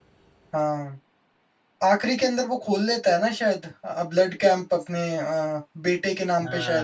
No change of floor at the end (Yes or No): No